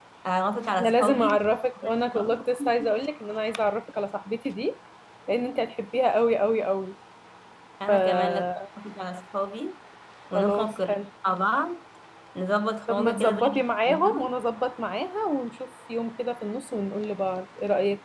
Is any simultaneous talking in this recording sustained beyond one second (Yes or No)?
Yes